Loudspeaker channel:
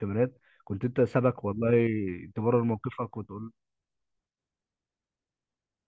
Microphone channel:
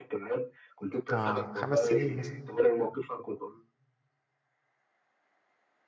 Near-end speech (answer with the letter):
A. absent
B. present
B